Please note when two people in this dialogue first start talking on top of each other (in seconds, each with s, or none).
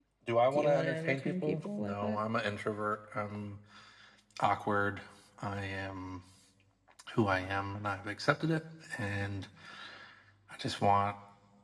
0.5 s